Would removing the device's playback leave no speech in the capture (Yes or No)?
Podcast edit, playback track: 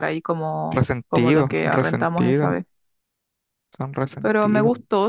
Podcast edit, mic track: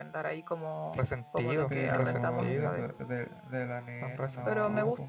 No